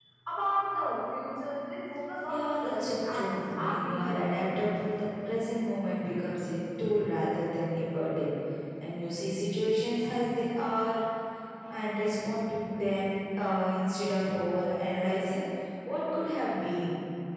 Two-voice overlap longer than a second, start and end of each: 2.3-4.2

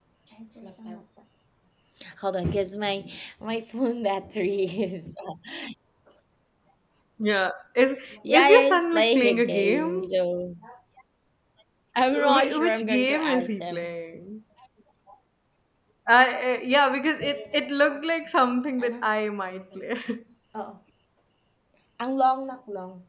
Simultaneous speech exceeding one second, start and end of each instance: 8.3-10.1, 12.1-13.9

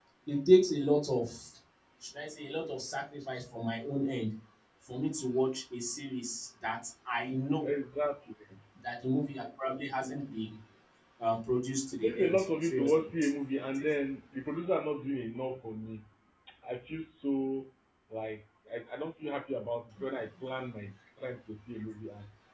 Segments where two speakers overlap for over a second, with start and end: 11.9-13.3

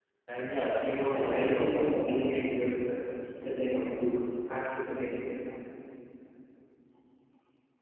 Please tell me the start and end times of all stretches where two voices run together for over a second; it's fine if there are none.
1.1-2.5

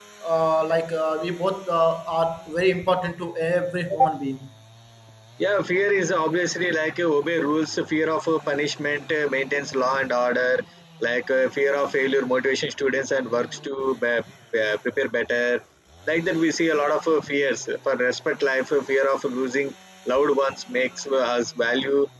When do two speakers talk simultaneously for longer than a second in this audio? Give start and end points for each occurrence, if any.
none

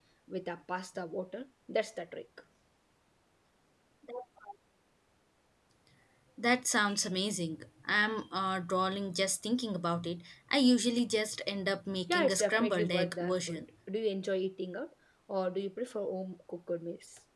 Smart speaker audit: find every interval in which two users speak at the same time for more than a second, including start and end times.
12.1-13.6

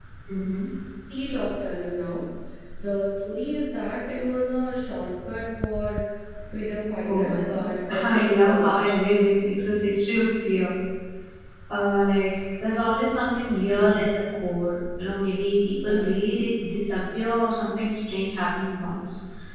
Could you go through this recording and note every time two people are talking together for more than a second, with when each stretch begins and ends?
7.0-8.8

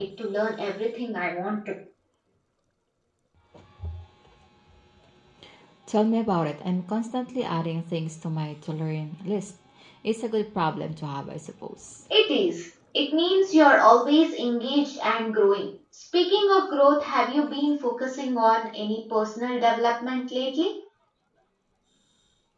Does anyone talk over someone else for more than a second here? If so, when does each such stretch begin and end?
none

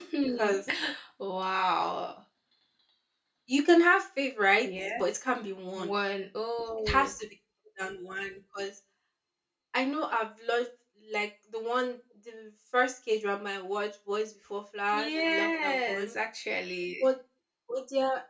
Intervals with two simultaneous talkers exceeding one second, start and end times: 14.9-16.2

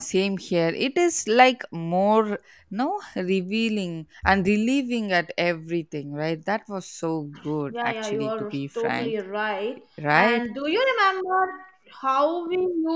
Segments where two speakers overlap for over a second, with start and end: 7.7-9.1

